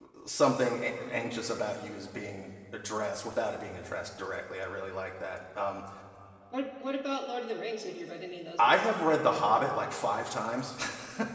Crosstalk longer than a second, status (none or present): none